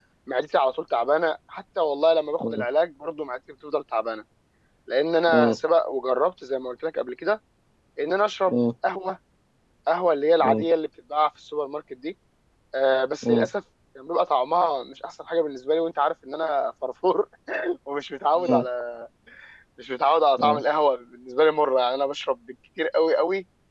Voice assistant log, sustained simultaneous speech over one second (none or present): none